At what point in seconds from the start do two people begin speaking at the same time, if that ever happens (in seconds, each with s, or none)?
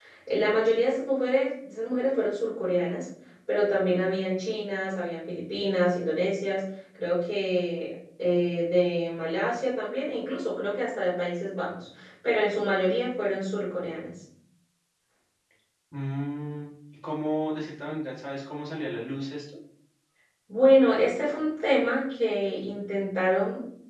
none